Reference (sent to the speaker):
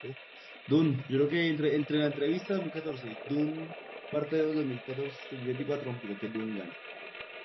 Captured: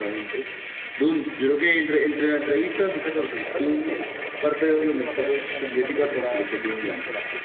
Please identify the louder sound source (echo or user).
echo